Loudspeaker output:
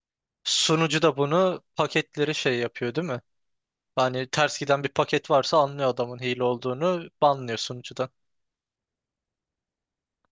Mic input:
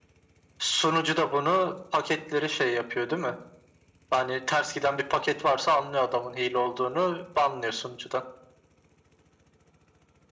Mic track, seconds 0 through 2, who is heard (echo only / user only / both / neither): echo only